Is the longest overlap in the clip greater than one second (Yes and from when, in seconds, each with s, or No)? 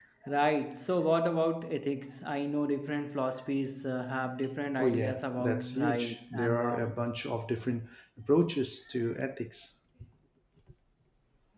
Yes, from 4.8 s